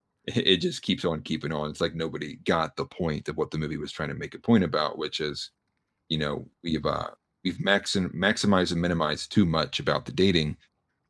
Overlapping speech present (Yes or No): No